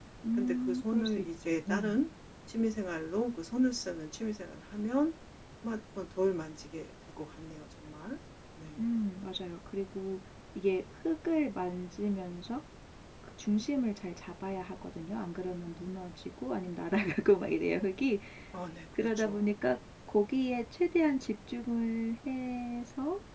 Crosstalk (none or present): present